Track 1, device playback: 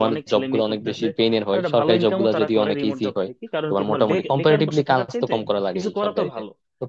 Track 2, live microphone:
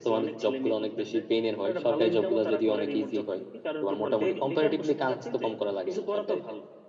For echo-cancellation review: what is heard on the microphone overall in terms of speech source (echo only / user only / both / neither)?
echo only